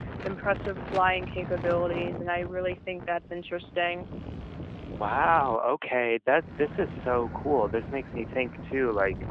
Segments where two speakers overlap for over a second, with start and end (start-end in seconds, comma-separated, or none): none